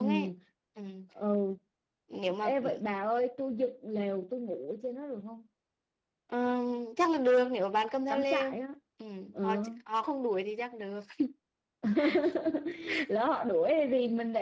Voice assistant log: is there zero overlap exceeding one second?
Yes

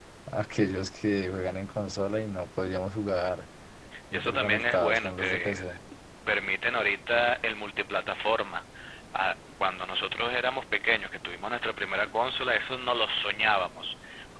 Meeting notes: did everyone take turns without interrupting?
No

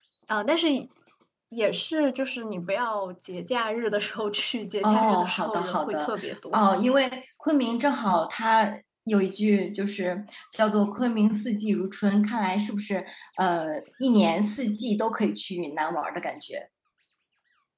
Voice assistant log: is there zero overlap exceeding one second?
No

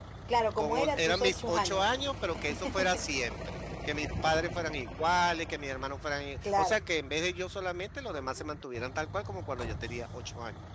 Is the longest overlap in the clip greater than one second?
Yes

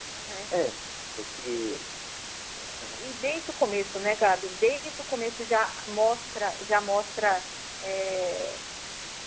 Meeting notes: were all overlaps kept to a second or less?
Yes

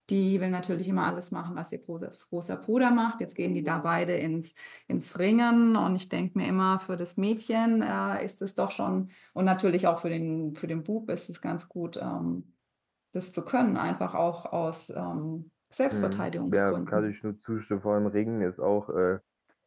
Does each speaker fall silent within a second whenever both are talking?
No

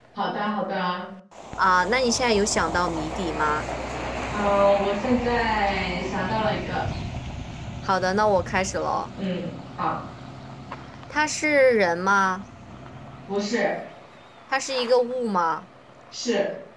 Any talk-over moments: No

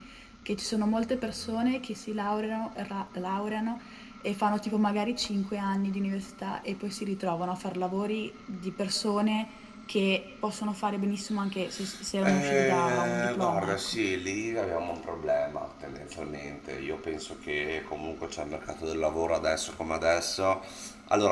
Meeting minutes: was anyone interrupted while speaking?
Yes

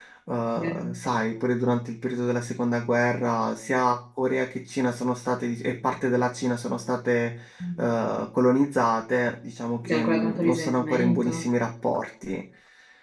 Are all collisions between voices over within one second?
No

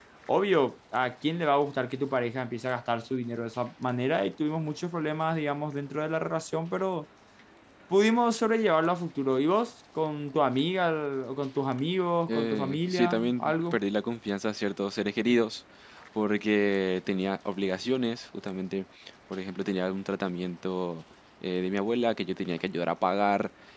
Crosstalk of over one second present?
Yes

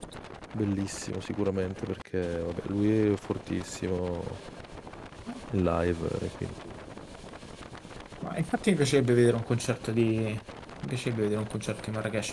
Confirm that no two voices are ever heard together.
Yes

